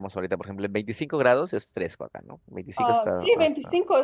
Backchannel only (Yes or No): No